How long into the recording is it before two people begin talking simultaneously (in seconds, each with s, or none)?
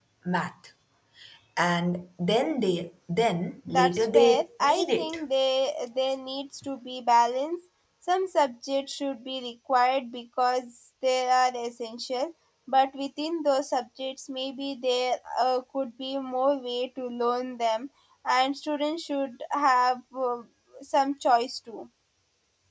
3.7 s